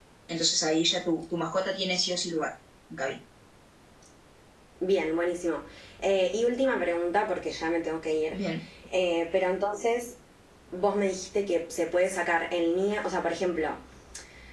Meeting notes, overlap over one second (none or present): none